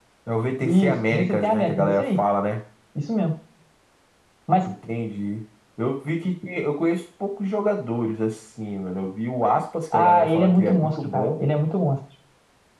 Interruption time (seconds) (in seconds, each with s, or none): 0.6 s